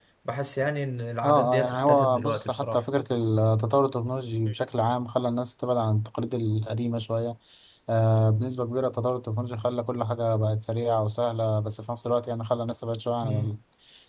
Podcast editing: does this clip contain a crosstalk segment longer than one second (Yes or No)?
Yes